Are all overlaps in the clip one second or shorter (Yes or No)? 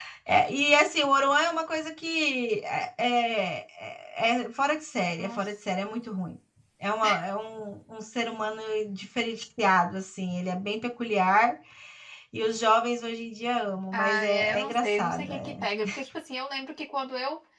No